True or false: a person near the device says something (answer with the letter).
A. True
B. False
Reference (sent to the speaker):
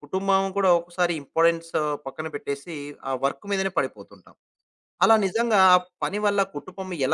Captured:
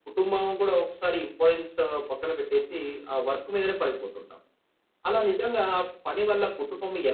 B